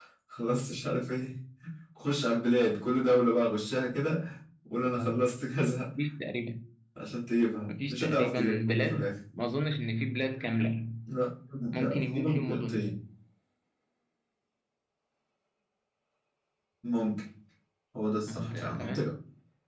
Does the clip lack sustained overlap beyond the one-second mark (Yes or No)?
No